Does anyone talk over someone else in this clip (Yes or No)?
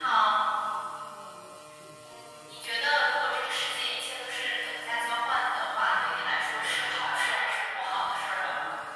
Yes